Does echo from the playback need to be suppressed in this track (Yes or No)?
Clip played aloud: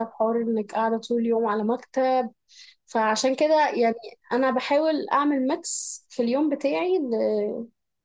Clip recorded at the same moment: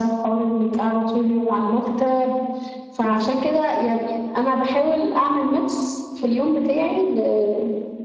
Yes